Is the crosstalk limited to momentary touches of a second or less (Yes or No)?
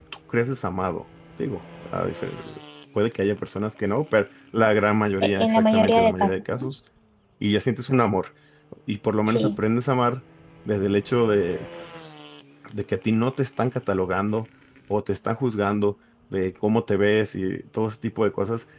No